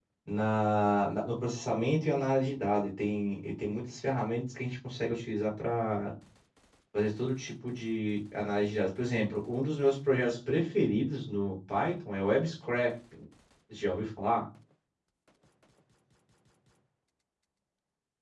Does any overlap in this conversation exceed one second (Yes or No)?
No